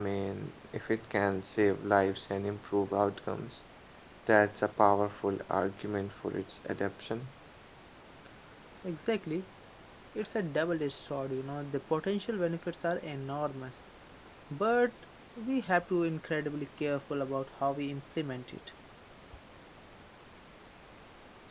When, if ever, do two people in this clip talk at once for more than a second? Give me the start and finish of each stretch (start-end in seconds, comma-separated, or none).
none